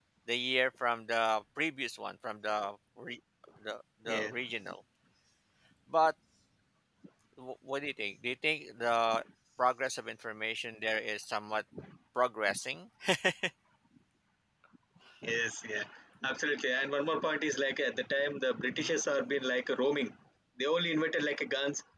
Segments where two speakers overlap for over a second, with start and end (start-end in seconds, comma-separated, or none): none